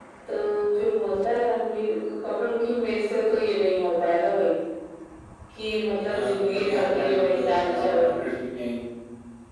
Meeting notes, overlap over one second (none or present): present